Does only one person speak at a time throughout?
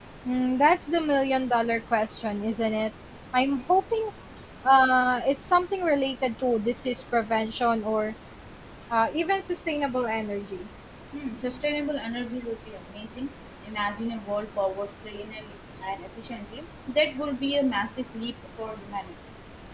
Yes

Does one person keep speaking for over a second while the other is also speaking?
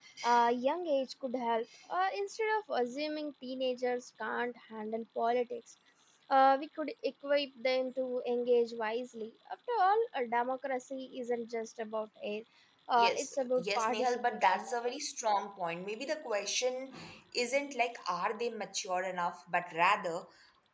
Yes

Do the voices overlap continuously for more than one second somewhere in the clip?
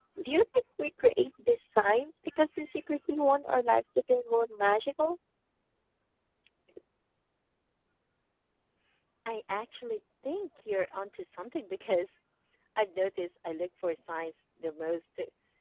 No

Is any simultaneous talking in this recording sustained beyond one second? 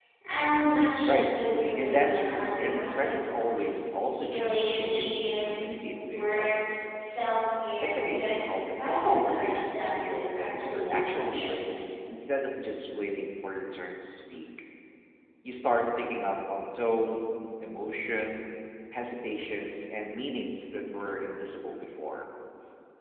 Yes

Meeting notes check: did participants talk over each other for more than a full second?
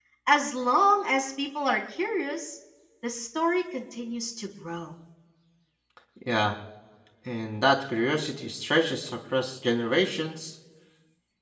No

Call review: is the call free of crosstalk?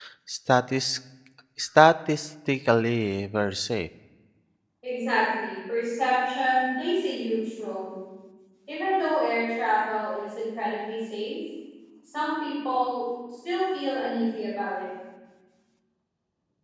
Yes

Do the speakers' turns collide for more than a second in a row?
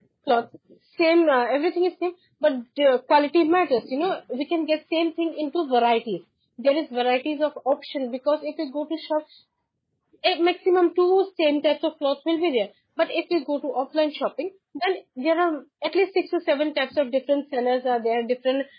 No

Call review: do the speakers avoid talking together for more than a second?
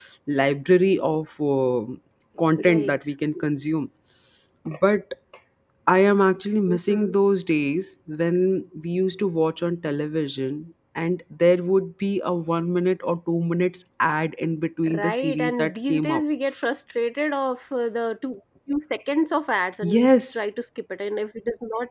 No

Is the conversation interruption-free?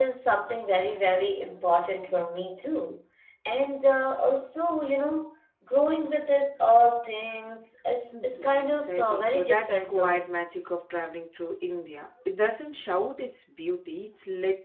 No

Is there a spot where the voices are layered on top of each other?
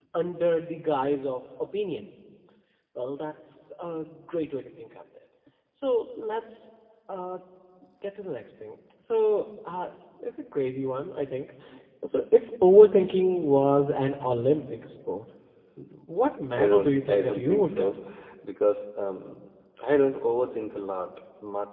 Yes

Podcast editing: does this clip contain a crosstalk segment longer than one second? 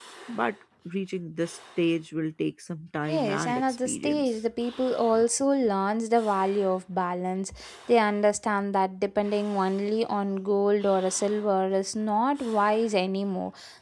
Yes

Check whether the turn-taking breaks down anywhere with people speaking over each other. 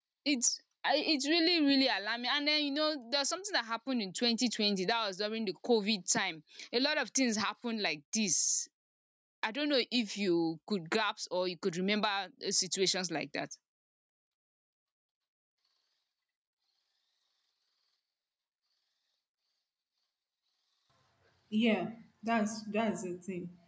No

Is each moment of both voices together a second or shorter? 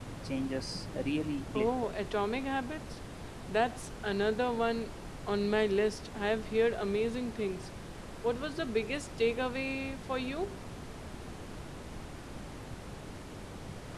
Yes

